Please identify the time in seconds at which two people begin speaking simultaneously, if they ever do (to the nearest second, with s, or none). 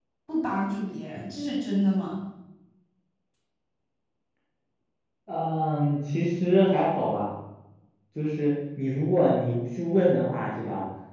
none